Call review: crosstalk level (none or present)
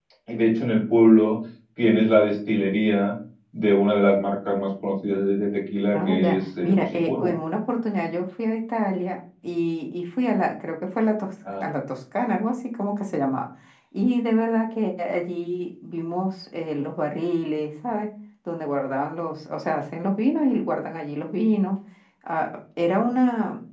present